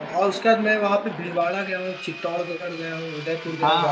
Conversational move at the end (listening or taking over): taking over